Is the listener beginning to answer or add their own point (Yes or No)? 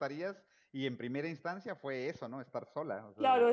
Yes